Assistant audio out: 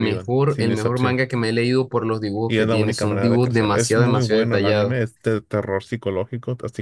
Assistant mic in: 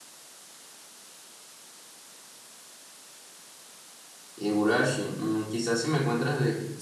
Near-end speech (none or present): present